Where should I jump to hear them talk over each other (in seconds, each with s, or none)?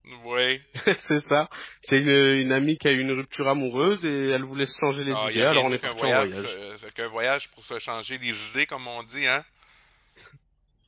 5.1 s